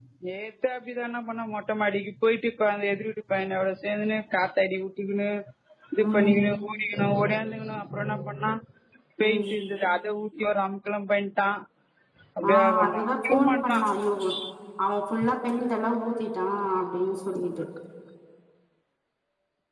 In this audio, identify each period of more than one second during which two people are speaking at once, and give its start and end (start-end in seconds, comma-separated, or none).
12.5-13.8